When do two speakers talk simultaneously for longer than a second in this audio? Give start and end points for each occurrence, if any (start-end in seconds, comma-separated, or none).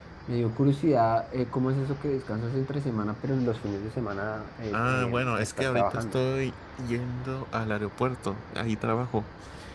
4.7-6.2